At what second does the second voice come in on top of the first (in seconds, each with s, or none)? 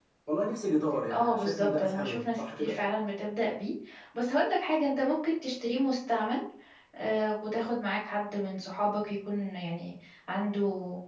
1.1 s